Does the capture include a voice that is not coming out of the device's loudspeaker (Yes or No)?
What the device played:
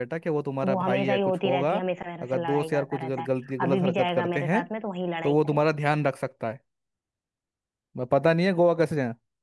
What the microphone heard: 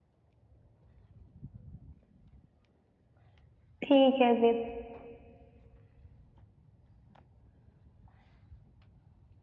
Yes